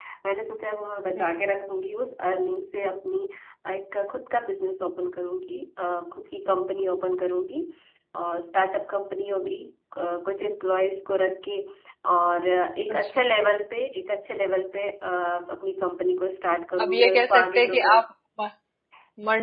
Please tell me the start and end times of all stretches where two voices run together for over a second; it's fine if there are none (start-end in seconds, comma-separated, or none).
16.8-18.0